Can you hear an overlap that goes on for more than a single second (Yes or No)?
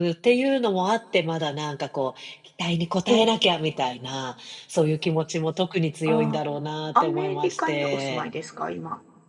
Yes